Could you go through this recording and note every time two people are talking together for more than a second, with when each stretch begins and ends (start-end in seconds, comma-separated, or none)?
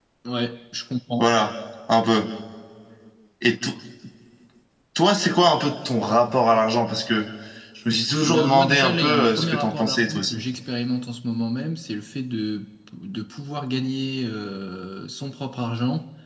8.2-10.4